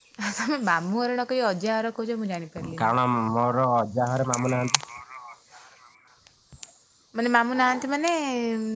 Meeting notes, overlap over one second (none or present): none